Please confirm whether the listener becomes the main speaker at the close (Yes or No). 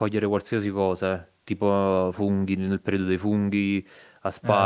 No